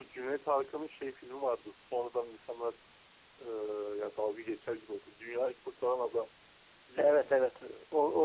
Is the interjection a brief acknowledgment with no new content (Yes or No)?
No